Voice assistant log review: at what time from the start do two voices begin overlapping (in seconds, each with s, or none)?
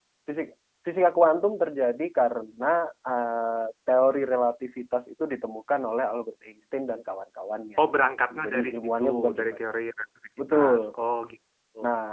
8.3 s